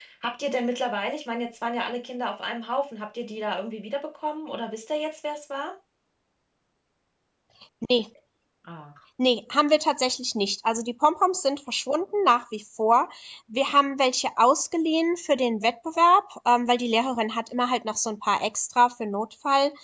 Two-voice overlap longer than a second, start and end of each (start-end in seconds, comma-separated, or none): none